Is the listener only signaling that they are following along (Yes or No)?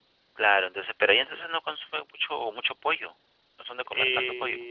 No